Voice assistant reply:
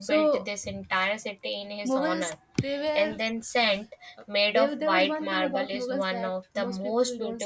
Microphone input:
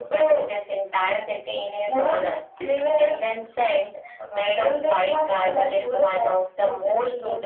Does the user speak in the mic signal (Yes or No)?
No